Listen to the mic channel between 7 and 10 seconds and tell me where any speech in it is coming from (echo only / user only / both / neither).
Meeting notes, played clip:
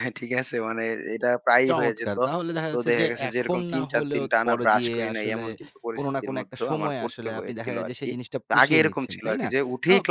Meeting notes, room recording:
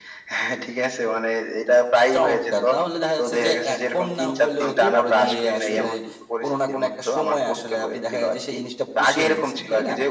echo only